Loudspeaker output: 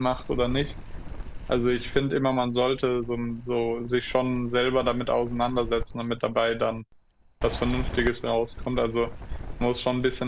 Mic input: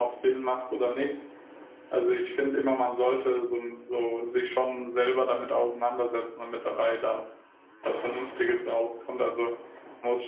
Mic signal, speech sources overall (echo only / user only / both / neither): echo only